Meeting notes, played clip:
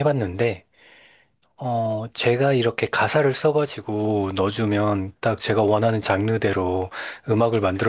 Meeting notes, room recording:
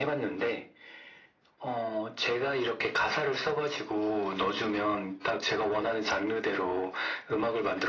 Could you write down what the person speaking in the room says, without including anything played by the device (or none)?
none